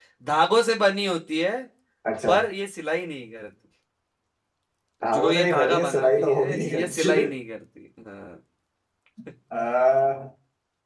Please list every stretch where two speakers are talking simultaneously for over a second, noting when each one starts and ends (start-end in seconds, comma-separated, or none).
5.0-7.1